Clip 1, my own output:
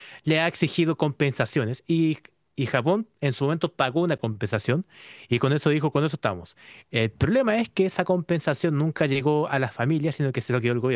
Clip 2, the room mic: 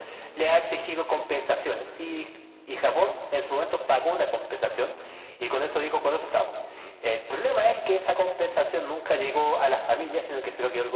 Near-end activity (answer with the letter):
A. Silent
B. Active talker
A